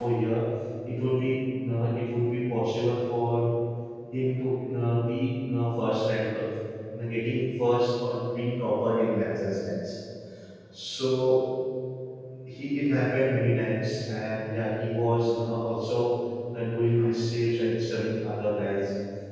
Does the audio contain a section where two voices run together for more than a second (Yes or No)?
No